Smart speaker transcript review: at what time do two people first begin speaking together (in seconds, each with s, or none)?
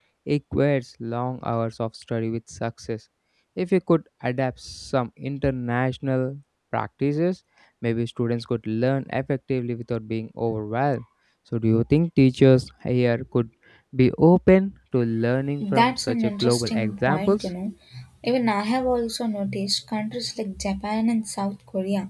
15.6 s